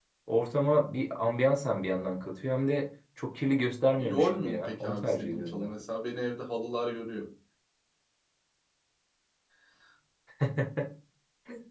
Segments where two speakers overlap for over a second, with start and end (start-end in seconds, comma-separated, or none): 4.0-5.7